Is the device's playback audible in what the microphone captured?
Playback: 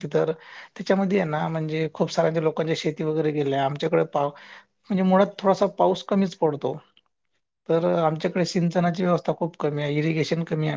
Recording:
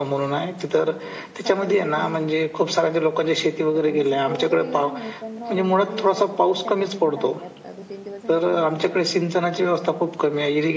Yes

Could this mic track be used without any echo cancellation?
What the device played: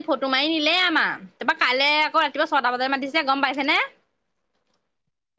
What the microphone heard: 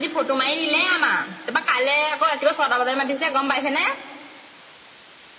No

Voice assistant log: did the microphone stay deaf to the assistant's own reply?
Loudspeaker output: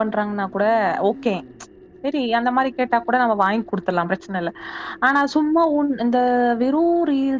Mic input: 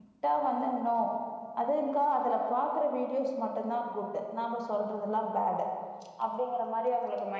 Yes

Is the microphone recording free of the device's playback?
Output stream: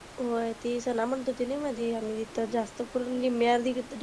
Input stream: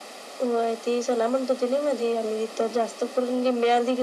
No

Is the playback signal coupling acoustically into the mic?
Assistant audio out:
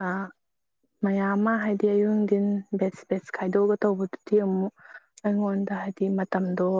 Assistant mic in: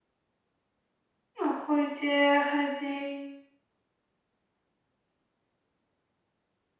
No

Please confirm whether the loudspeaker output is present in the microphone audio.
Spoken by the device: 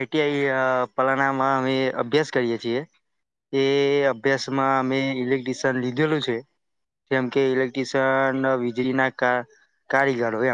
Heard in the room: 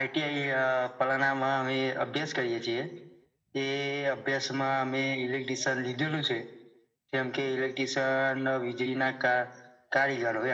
Yes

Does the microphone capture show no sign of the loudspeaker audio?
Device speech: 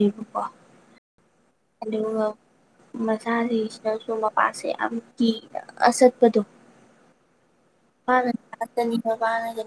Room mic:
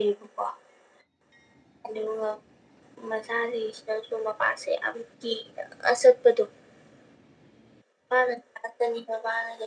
No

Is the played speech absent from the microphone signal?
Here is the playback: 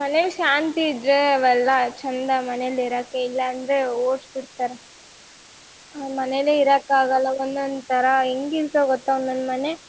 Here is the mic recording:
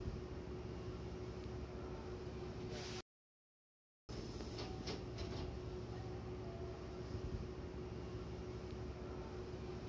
Yes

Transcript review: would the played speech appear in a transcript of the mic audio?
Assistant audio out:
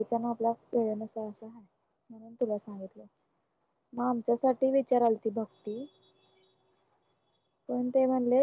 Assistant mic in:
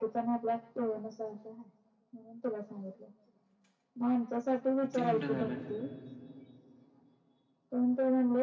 Yes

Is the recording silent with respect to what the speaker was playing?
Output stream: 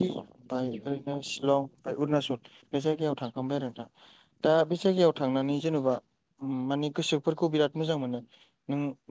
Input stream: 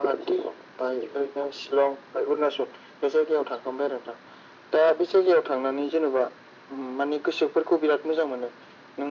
No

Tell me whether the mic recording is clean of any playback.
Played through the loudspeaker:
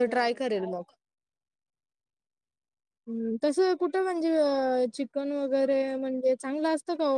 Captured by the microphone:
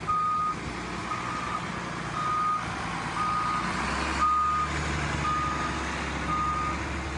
Yes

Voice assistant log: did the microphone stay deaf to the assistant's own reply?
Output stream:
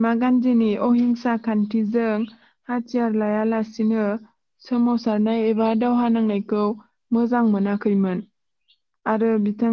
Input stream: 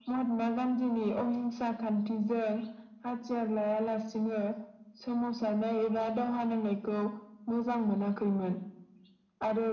No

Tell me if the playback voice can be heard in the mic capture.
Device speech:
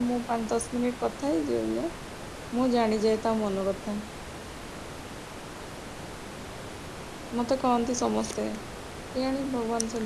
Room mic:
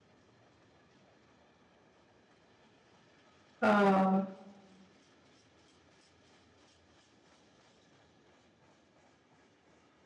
No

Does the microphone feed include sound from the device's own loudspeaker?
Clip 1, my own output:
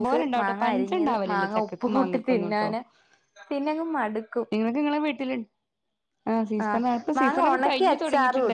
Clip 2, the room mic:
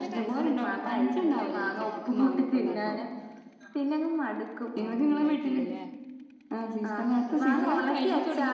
Yes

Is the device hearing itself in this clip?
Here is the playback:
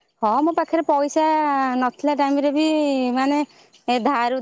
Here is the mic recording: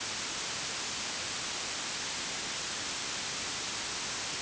No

